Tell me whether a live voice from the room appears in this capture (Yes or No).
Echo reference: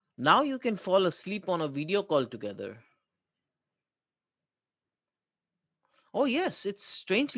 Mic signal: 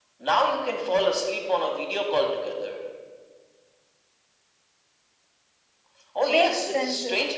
Yes